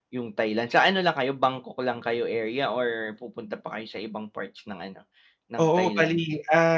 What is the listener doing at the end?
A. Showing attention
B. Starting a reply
B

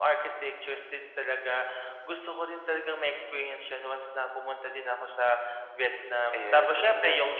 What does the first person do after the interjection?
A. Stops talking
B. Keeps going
B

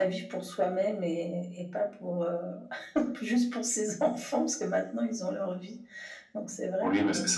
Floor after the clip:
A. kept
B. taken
B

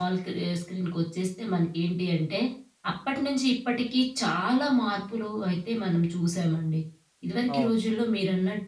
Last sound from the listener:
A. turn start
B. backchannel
B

